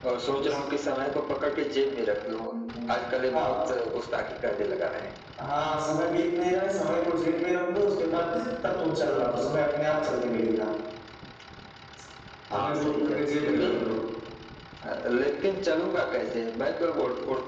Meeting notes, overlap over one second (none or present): present